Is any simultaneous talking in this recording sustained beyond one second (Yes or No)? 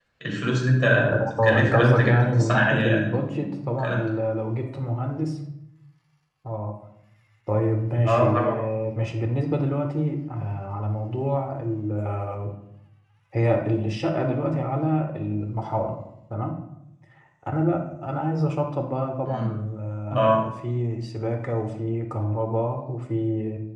Yes